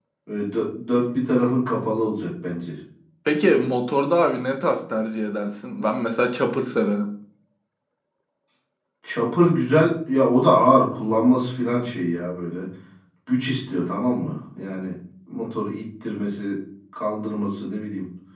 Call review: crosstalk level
none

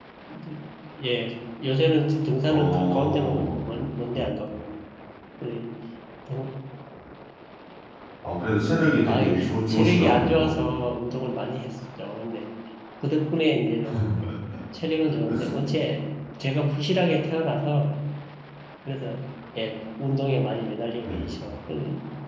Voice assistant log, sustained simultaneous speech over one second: present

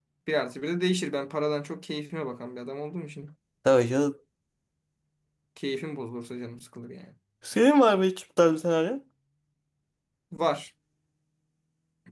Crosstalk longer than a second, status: none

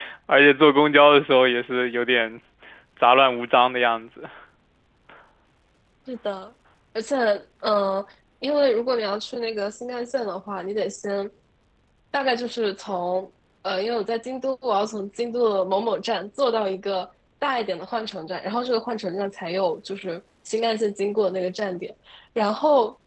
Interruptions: none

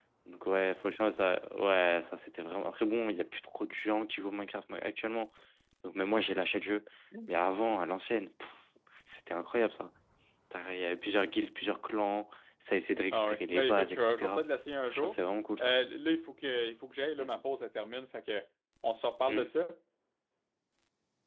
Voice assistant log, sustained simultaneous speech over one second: present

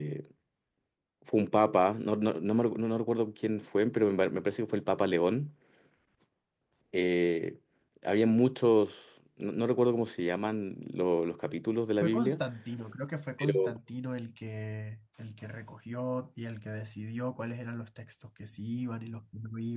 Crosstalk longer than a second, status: none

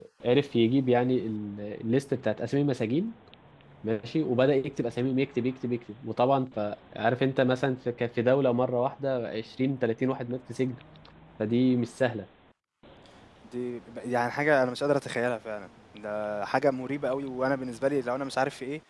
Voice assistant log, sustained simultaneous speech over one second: none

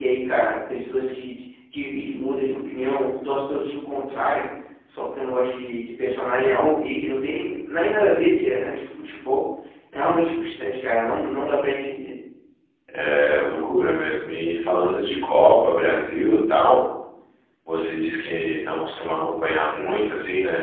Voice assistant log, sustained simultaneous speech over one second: none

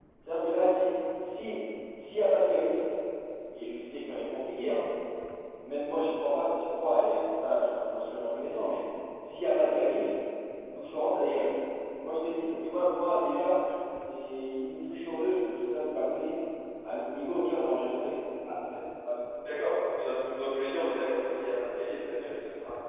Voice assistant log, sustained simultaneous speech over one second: none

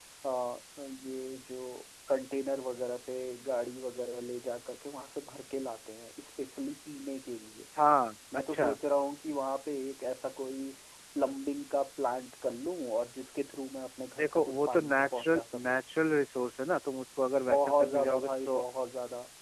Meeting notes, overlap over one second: present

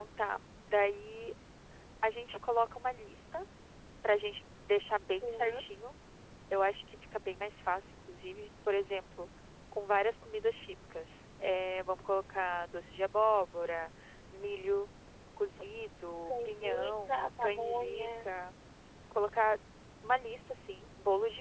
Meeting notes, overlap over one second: present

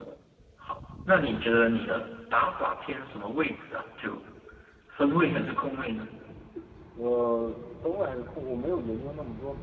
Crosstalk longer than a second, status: none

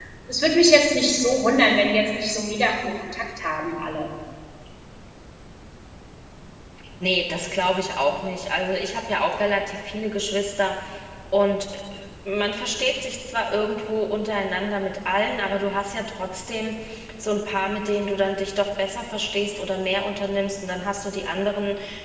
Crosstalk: none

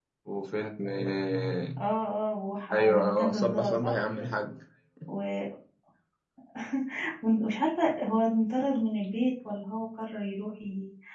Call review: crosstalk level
present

